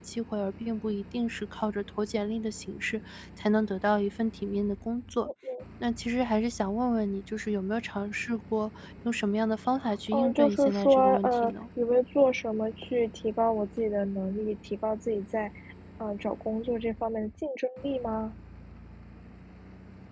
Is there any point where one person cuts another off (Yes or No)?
Yes